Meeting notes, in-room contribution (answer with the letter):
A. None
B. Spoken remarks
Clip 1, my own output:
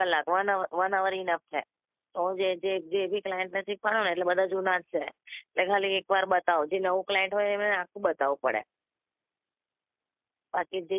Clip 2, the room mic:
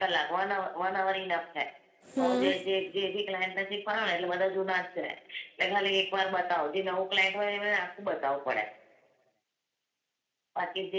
B